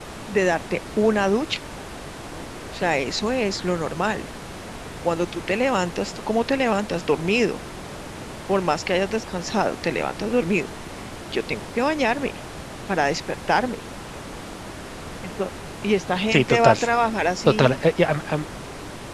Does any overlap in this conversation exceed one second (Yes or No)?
No